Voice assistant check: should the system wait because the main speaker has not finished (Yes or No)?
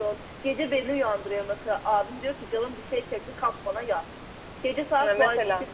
Yes